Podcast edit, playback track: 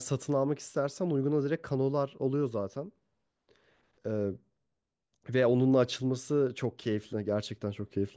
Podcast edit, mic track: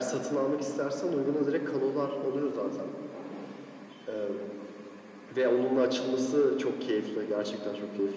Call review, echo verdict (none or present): present